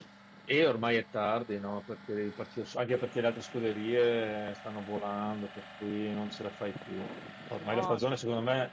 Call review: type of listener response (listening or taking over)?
listening